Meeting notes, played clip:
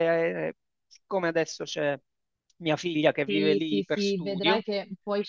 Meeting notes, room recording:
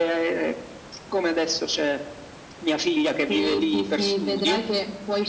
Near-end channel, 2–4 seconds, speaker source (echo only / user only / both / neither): echo only